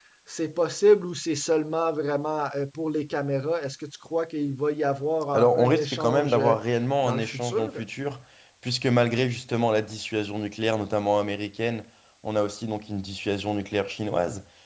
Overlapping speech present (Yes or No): Yes